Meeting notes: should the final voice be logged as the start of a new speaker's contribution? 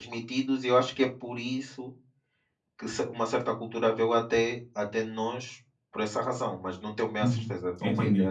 Yes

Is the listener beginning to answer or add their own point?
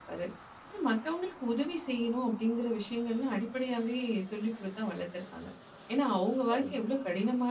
No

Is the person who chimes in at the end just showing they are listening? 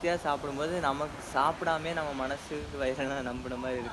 No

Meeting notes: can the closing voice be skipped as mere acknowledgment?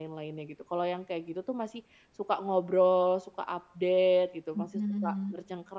Yes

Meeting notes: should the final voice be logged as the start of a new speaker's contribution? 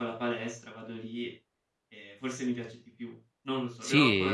Yes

